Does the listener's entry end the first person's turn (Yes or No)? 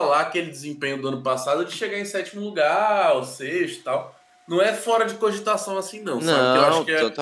Yes